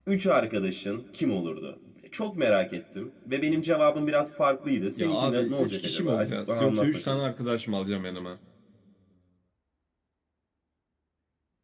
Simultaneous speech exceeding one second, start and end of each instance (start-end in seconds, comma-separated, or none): 5.0-7.2